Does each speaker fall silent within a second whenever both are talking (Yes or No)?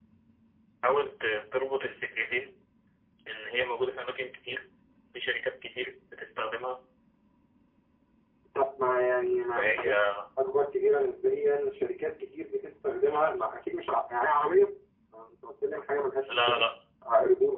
Yes